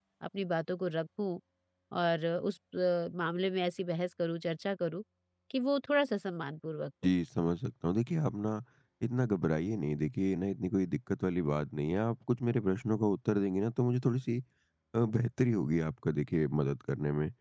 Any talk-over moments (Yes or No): No